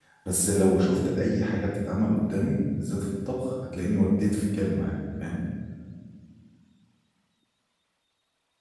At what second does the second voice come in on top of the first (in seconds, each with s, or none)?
none